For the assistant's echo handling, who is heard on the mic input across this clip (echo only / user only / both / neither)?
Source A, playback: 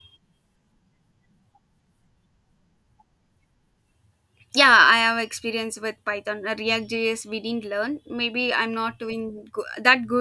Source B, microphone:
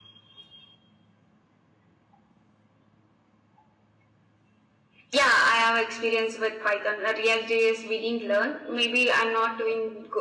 echo only